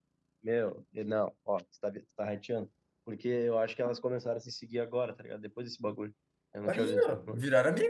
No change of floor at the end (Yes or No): No